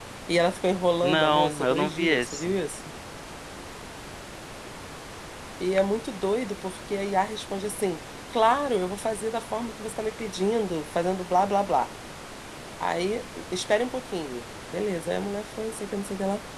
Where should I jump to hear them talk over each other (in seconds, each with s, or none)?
1.0 s